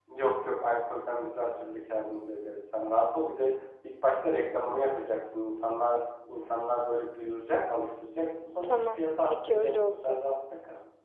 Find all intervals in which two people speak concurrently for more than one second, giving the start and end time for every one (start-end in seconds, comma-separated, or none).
8.6-10.2